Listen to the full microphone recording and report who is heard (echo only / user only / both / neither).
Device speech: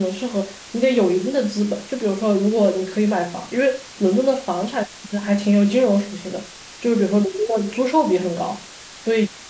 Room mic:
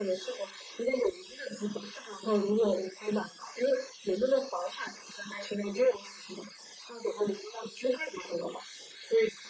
echo only